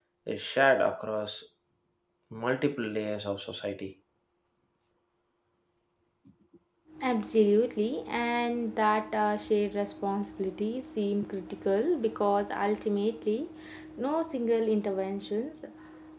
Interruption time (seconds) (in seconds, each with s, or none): none